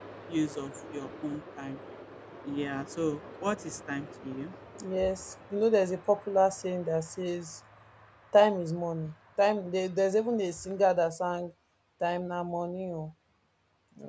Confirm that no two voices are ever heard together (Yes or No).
Yes